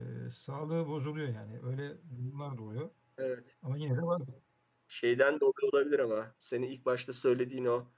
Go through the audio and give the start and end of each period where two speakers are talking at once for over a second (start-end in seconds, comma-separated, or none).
none